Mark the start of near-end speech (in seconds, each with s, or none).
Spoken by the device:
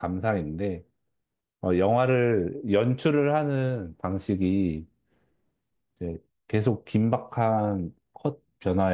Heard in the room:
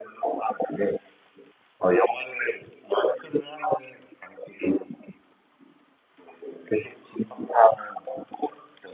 none